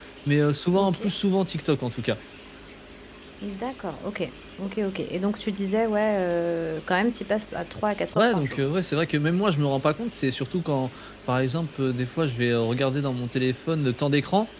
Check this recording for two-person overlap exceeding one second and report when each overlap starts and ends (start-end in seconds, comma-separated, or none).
none